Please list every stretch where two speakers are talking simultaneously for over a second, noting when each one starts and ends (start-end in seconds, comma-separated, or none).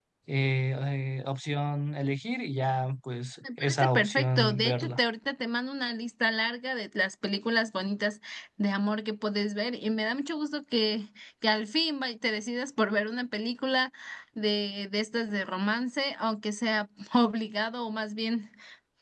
3.6-5.0